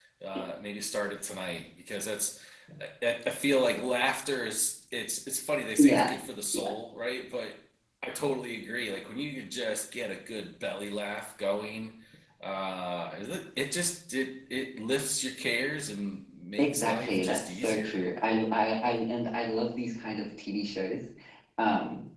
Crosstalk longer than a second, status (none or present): present